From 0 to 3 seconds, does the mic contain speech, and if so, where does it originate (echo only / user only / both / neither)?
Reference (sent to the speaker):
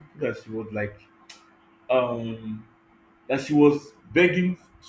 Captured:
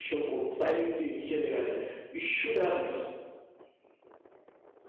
user only